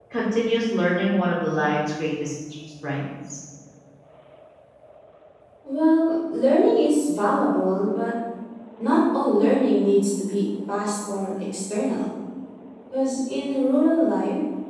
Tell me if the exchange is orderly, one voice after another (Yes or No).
Yes